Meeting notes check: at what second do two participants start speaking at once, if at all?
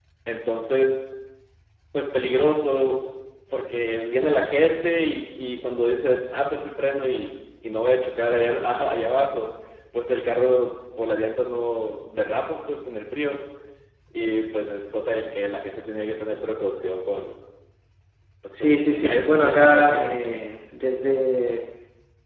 19 s

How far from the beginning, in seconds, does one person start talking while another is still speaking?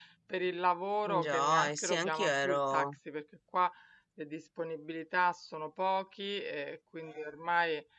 1 s

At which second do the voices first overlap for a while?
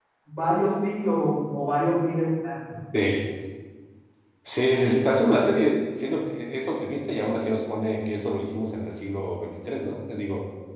none

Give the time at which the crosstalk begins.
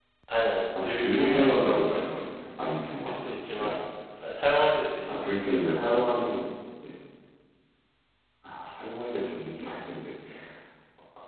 1 s

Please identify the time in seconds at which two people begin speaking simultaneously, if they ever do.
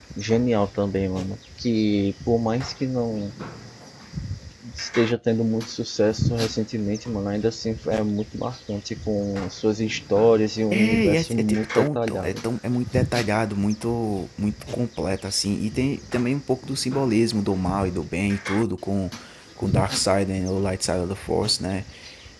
11 s

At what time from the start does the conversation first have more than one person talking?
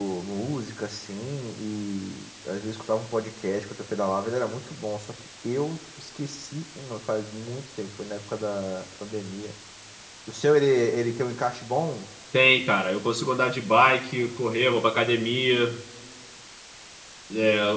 none

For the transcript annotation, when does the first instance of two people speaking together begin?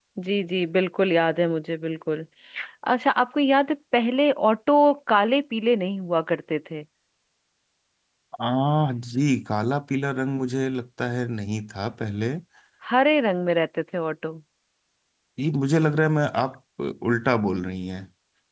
none

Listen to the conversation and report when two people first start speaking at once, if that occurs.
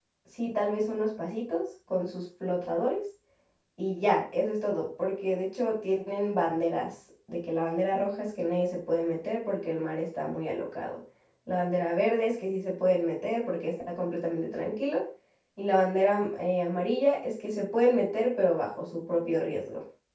none

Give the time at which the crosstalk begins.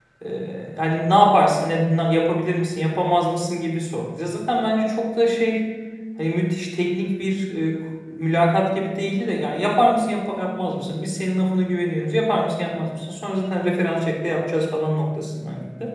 none

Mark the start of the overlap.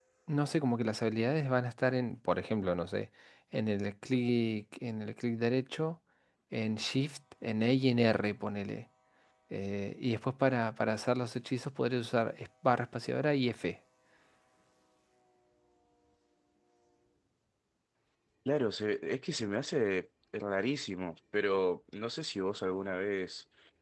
none

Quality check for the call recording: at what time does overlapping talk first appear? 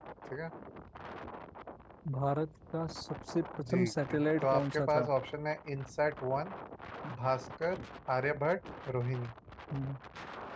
4 s

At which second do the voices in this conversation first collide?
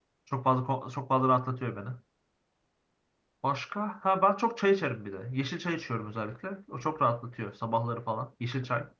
none

